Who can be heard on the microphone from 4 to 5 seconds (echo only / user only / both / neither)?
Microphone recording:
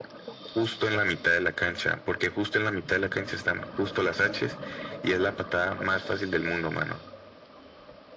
echo only